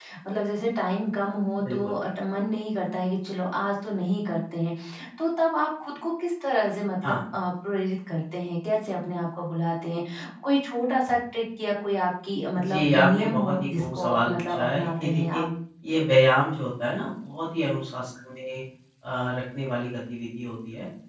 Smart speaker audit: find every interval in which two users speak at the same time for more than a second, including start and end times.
12.5-15.4

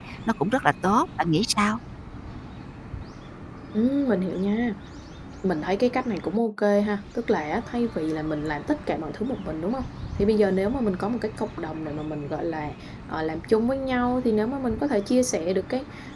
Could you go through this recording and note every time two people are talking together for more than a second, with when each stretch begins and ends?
none

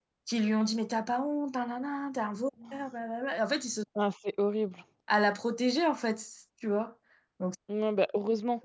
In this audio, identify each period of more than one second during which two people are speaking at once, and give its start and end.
none

